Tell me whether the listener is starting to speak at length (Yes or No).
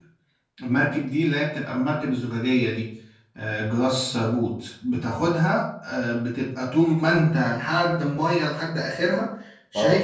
No